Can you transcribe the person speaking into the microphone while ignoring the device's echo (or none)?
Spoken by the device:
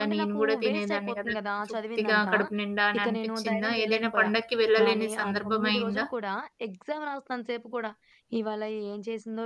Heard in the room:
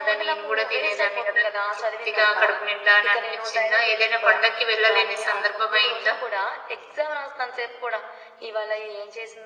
none